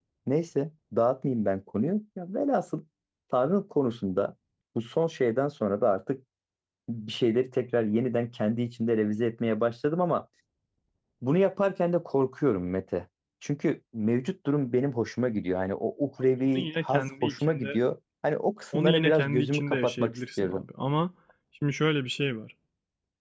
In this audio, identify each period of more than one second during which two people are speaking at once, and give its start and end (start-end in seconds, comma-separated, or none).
16.6-17.8, 18.7-20.6